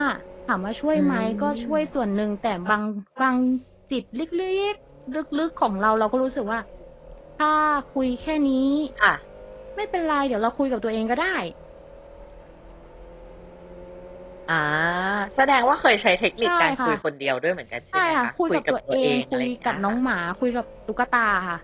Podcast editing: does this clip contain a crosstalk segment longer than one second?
Yes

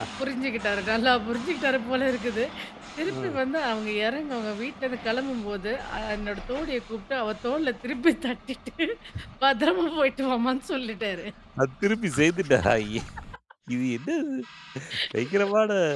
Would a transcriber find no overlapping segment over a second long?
Yes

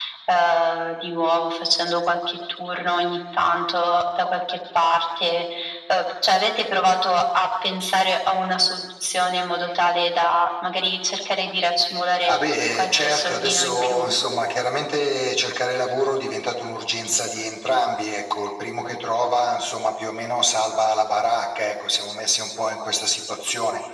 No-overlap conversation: No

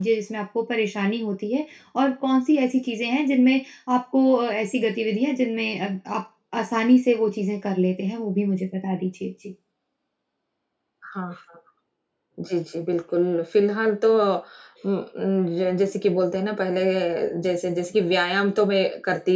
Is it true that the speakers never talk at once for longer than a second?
Yes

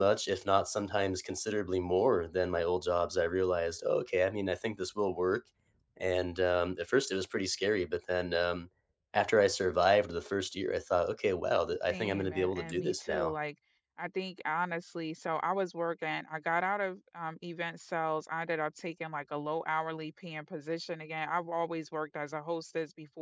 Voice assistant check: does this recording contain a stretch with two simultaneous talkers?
Yes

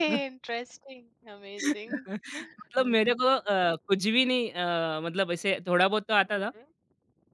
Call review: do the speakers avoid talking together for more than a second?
Yes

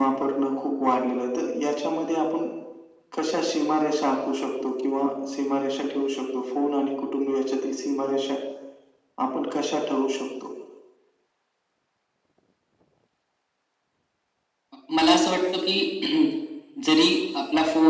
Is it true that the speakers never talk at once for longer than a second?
Yes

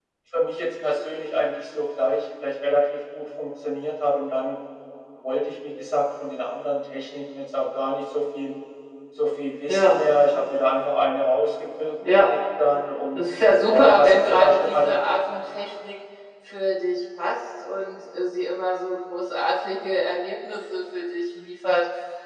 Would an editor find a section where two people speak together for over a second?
Yes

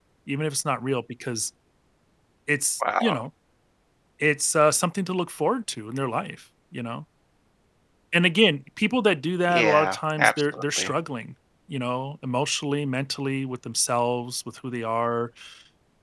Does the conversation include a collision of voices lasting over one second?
Yes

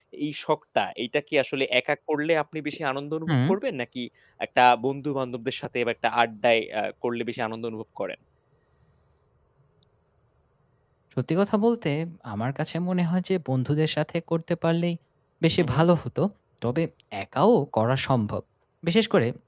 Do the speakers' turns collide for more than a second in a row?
No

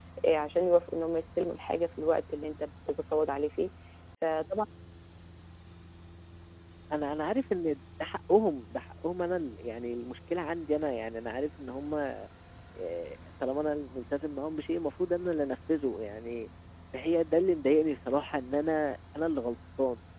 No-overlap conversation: Yes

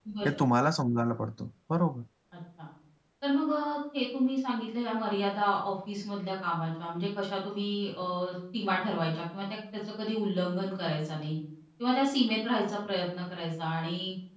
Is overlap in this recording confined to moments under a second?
Yes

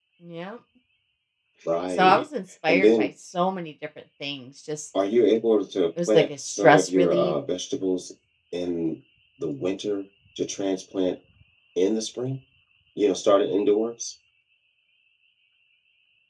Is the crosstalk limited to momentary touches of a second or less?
No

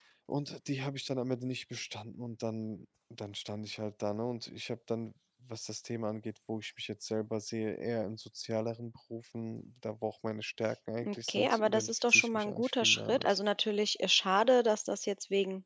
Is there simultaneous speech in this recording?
Yes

